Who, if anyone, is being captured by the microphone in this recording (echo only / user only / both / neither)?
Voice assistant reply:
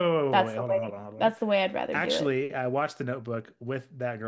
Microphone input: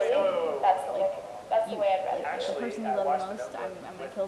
both